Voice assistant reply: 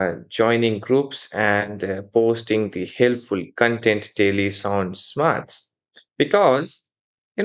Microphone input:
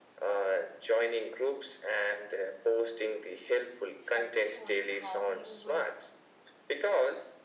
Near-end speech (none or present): present